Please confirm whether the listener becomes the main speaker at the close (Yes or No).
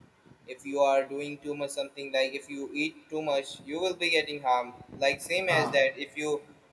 No